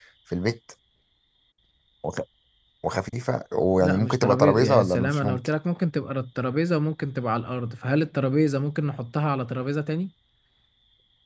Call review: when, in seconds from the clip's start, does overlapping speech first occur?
3.8 s

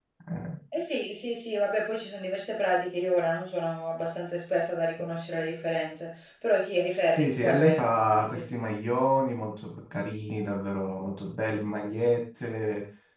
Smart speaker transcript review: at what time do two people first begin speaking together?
7.1 s

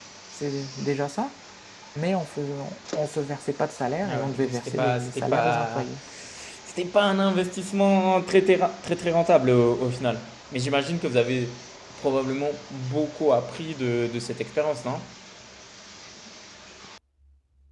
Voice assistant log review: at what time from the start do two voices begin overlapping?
4.0 s

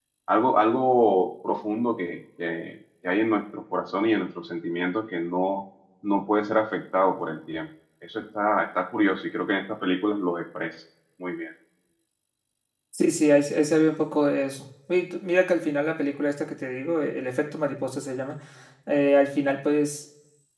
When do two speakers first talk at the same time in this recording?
none

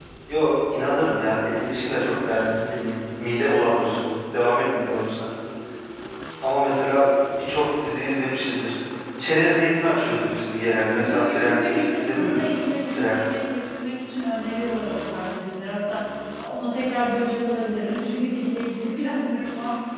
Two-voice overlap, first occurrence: 11.1 s

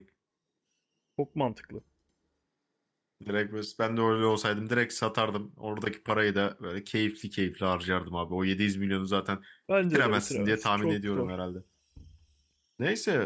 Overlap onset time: 9.9 s

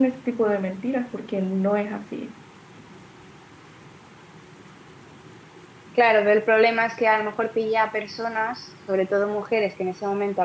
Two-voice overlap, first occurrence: none

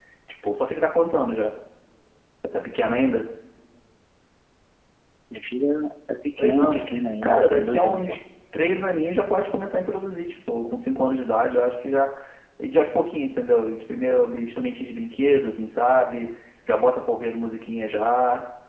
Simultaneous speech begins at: 6.4 s

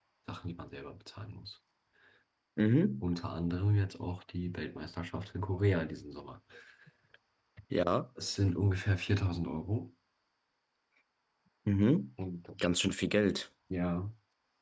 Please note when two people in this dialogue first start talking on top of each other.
none

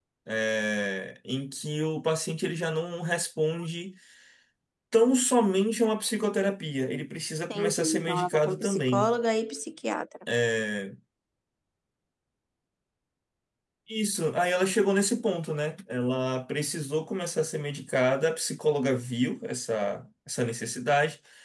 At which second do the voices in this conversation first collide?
7.5 s

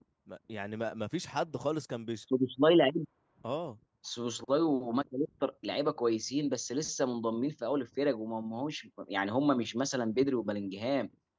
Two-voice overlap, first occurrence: none

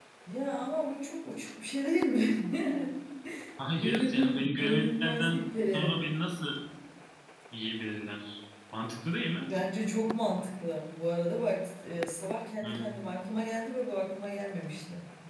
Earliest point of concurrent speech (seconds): 3.8 s

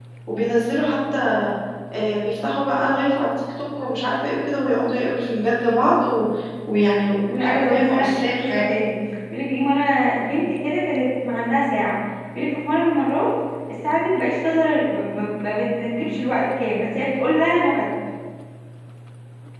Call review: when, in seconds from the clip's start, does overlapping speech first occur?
7.3 s

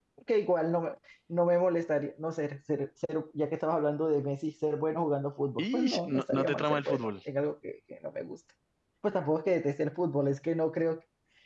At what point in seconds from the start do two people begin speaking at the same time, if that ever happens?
5.6 s

